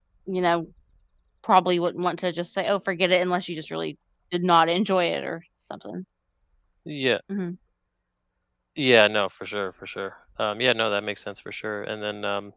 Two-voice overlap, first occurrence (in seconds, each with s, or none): none